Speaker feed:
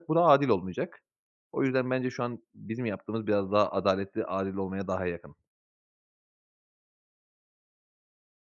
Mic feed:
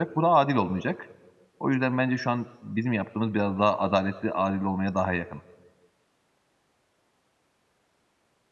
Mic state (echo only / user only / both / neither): echo only